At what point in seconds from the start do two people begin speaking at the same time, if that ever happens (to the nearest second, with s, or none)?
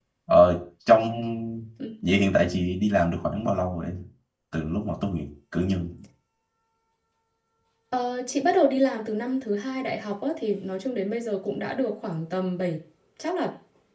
none